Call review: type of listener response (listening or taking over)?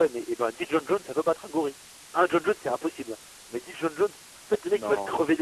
listening